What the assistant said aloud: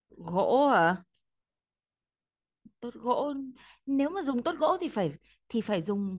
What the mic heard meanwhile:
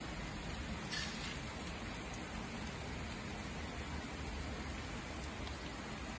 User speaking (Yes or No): No